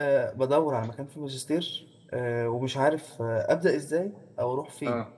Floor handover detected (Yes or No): No